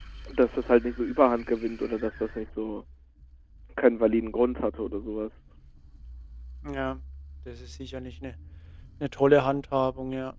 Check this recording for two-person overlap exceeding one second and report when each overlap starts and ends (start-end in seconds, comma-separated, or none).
none